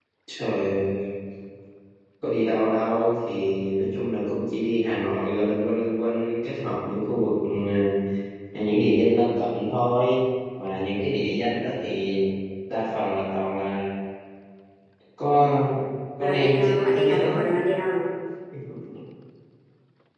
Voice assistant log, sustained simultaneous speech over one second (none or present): present